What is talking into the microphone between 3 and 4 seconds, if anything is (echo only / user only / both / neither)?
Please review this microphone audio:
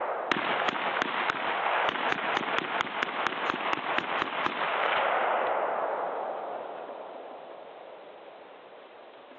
neither